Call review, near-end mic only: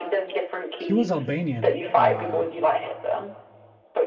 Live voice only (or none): He was Albanian. Uh,